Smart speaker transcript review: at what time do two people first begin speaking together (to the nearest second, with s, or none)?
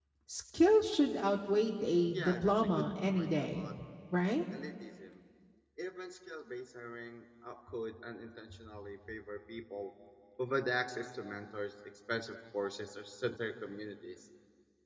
2 s